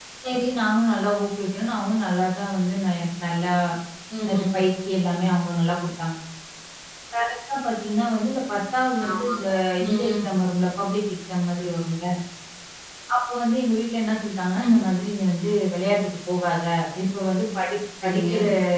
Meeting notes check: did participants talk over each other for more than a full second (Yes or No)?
No